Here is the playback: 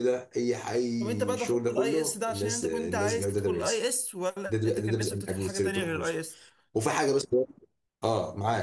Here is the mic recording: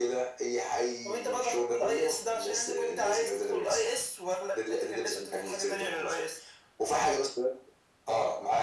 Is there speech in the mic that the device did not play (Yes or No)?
No